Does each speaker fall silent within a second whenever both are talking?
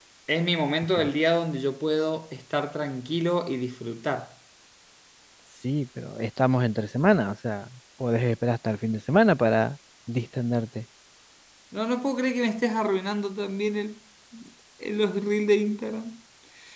Yes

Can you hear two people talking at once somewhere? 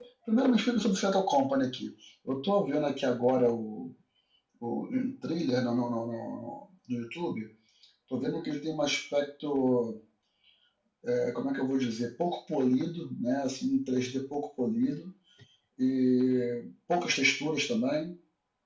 No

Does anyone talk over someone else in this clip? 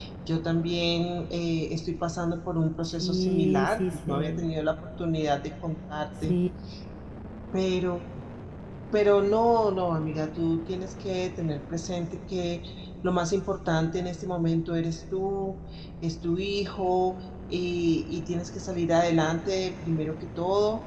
Yes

